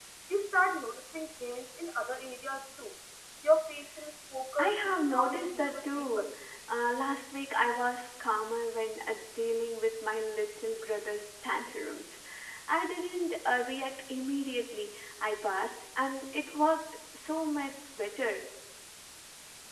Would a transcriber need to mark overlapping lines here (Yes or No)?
Yes